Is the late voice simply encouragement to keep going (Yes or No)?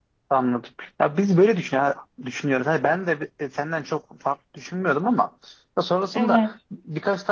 Yes